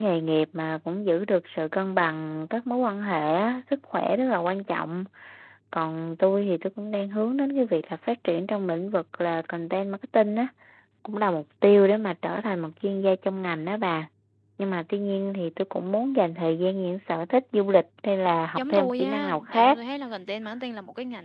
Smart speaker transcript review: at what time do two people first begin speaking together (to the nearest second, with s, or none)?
19 s